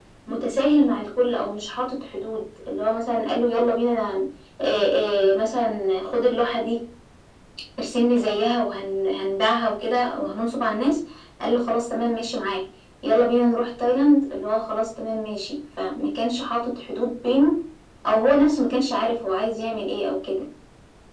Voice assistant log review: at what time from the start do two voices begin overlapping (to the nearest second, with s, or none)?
none